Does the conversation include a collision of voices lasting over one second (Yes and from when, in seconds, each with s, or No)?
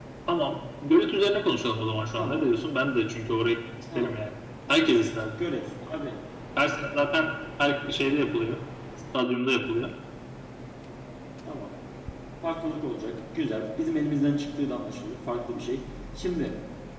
No